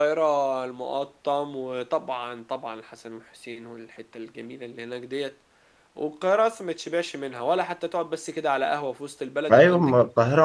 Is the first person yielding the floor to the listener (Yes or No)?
Yes